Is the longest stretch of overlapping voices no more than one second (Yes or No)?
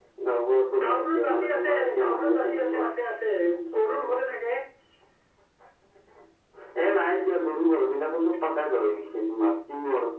No